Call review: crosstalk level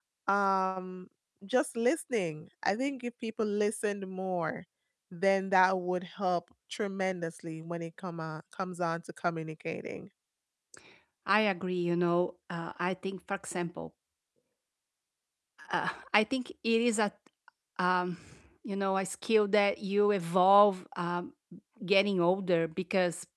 none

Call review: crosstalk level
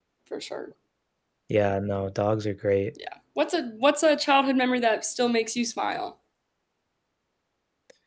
none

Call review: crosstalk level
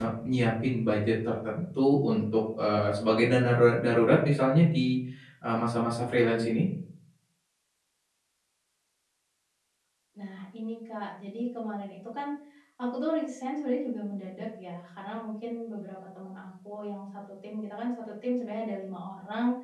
none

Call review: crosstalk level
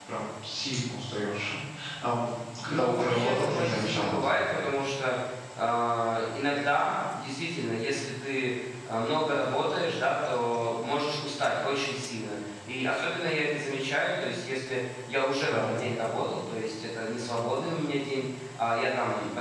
present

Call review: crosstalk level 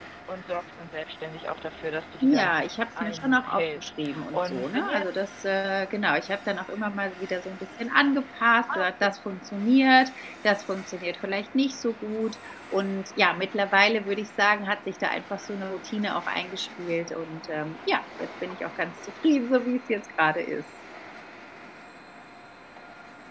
present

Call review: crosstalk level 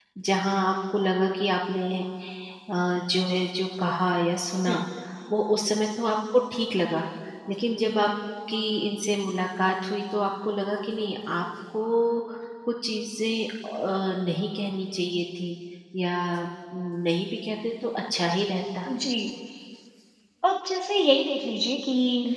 none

